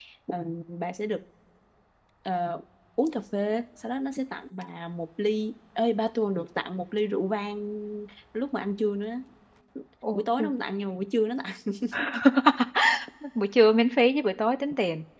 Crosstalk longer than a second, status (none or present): none